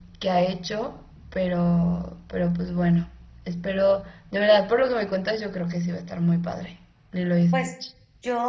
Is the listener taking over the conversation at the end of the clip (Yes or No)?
Yes